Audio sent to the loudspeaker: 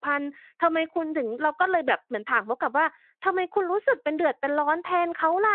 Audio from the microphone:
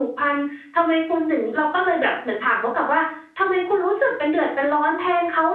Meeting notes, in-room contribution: none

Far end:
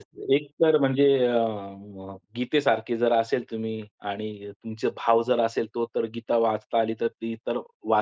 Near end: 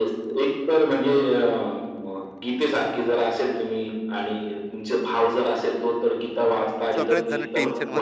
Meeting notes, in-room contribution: present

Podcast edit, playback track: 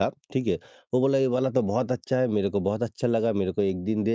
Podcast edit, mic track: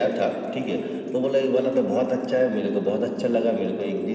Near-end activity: none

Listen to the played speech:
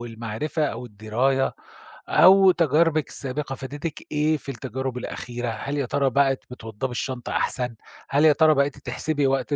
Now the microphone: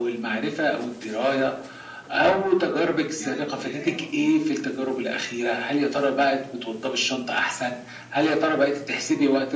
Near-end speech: present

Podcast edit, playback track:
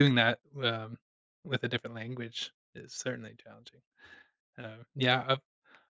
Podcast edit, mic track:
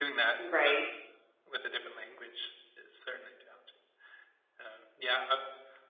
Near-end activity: present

